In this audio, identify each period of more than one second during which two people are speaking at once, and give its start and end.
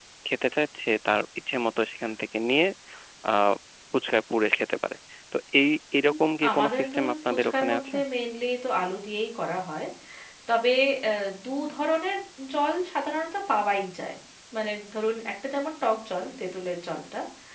6.5-7.9

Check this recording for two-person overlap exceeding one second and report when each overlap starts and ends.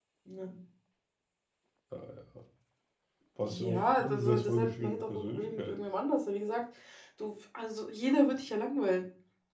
3.4-5.7

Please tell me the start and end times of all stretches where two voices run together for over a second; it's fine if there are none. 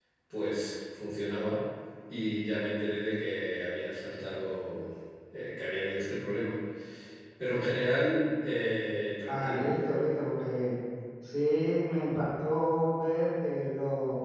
none

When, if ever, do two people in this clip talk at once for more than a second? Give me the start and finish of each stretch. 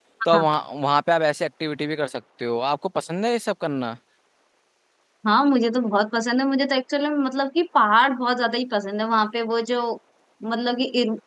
none

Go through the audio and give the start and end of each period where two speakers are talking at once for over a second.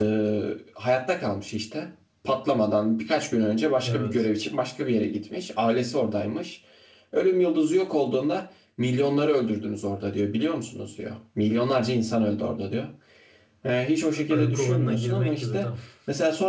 14.3-15.7

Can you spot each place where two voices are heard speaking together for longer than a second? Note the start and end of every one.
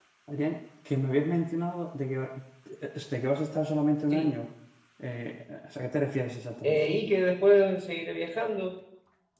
none

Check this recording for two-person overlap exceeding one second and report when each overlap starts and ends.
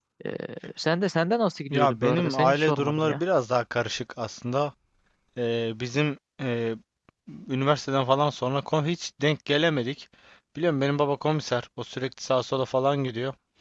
1.7-3.2

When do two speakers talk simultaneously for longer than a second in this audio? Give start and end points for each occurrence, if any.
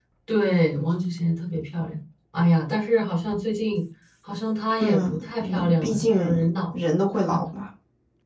4.8-6.3

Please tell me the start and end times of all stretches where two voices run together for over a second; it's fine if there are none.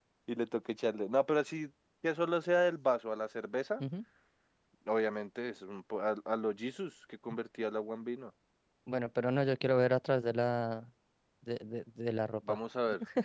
none

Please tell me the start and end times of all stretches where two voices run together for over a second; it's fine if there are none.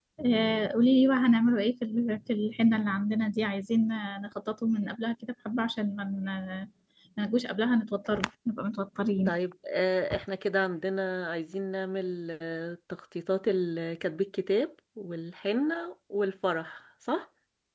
none

